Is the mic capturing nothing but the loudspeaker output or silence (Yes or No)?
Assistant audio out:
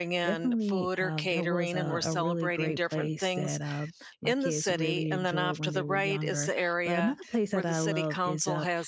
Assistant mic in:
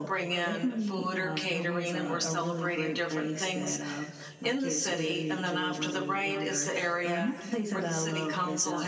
Yes